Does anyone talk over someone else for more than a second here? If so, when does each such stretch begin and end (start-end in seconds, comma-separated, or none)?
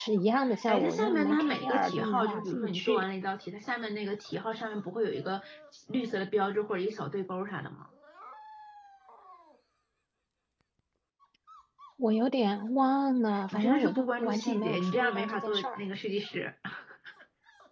0.7-3.0, 13.5-15.8